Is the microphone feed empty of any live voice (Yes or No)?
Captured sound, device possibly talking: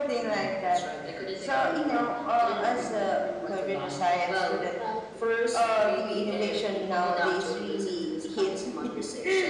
No